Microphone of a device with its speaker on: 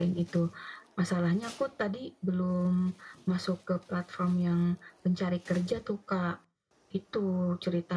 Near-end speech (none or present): none